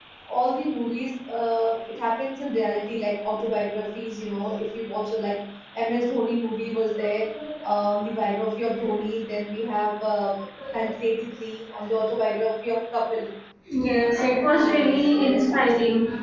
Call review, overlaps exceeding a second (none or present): present